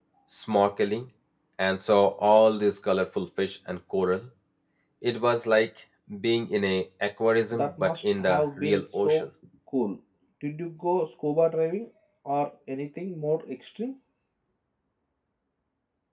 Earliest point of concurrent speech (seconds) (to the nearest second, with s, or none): 8 s